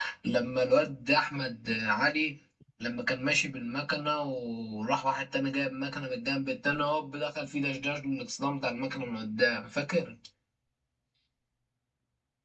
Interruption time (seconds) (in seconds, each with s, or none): none